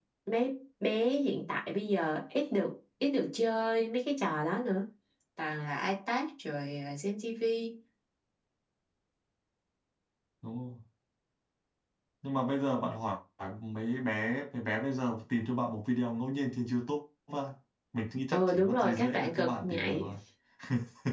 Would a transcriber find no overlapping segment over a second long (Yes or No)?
No